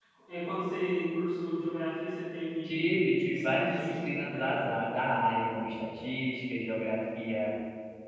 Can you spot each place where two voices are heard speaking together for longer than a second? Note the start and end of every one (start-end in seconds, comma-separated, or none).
3.3-4.6